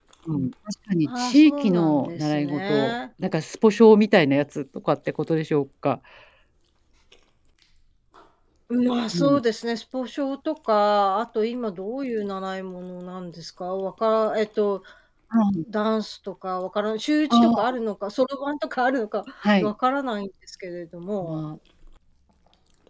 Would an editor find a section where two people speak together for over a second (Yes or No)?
Yes